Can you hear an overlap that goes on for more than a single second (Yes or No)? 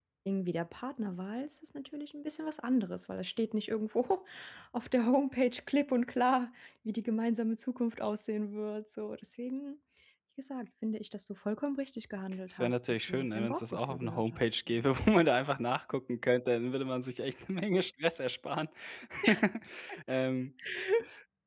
Yes